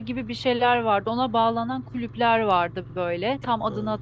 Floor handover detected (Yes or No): No